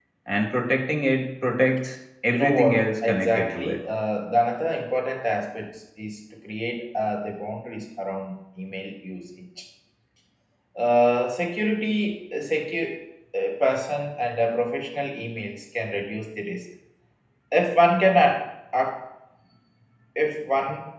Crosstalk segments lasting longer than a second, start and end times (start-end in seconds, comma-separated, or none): 2.3-3.8